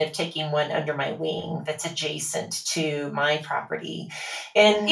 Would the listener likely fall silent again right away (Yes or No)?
Yes